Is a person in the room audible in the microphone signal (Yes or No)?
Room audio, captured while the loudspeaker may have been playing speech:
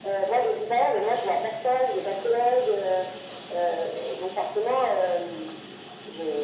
No